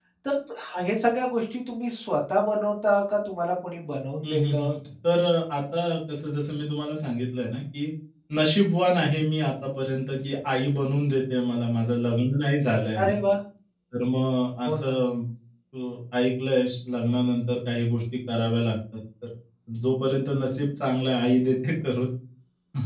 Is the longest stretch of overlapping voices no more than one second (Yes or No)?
Yes